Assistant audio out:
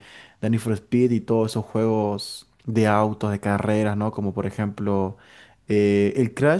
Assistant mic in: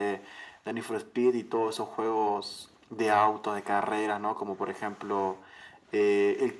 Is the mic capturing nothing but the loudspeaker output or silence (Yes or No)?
Yes